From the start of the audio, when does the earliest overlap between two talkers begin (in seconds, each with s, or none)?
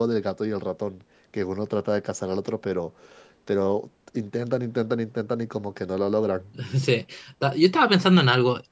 none